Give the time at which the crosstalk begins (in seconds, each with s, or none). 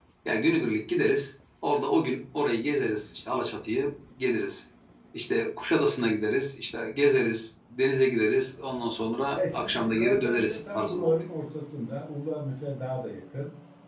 9.4 s